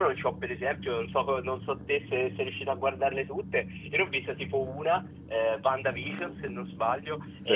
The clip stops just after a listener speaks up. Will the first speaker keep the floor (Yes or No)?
Yes